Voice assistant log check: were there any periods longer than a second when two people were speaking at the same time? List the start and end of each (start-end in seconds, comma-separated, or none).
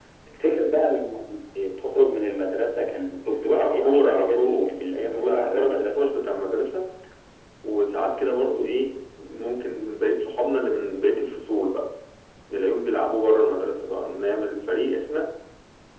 3.5-6.1